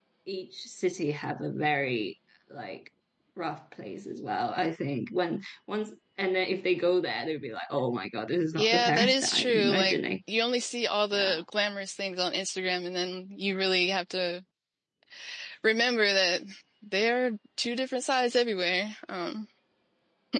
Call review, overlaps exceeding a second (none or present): present